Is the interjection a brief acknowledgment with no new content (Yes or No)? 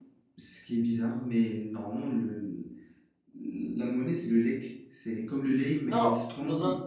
No